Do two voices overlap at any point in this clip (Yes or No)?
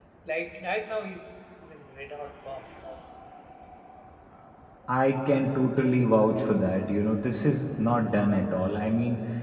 No